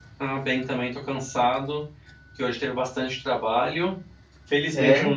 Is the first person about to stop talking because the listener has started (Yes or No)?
No